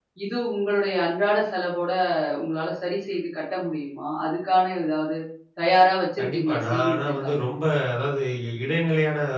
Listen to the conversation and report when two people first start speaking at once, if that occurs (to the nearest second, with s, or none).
6 s